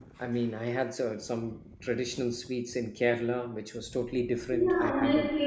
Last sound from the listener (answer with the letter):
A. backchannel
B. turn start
B